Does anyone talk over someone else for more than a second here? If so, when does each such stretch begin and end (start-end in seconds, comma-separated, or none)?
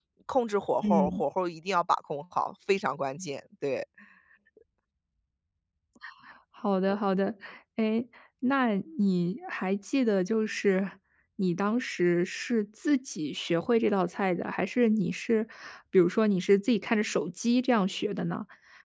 none